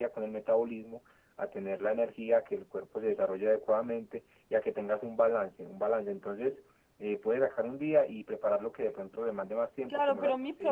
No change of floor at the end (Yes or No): No